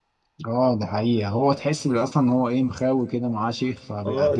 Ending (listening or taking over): taking over